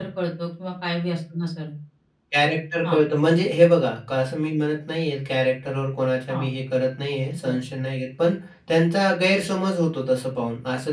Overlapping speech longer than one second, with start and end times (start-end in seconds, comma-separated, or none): none